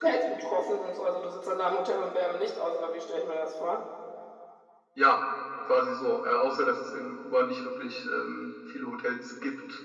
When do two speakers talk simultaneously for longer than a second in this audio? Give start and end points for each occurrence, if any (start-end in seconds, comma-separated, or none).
none